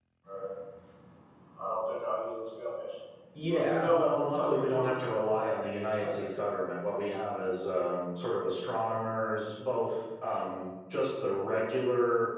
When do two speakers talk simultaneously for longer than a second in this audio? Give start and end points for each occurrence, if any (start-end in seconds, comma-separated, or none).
3.4-4.9